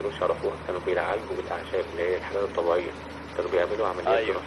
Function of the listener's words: listening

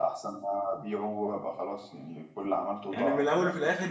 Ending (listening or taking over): taking over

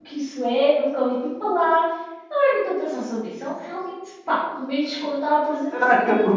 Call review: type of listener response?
taking over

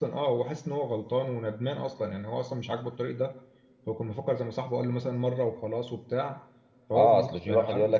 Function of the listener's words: taking over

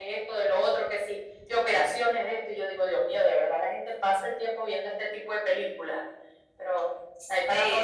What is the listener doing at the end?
taking over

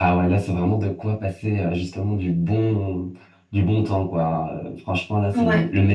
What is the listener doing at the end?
listening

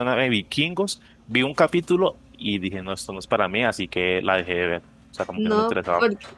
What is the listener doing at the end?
taking over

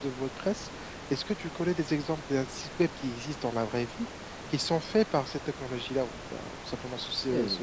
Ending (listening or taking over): taking over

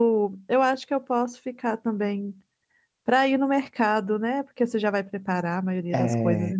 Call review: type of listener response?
taking over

